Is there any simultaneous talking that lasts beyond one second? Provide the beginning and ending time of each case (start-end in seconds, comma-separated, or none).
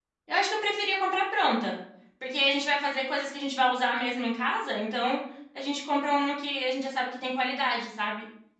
none